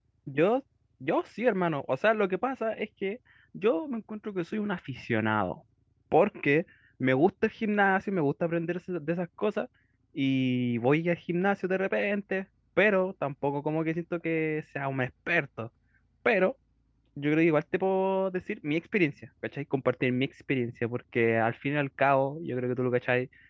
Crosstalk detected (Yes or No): No